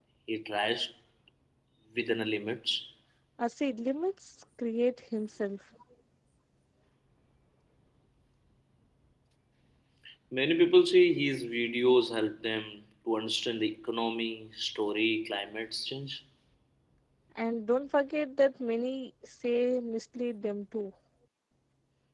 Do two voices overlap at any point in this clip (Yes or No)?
No